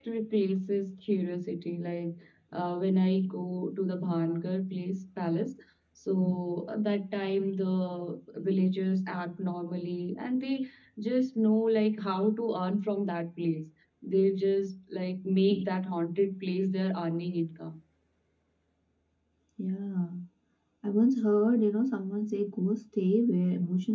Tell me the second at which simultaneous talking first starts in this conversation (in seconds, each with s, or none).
none